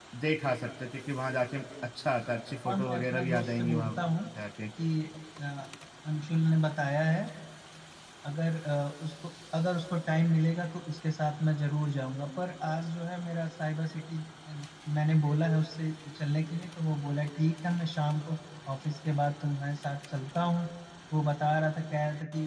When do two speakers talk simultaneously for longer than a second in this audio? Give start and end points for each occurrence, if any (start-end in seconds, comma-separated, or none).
2.7-4.0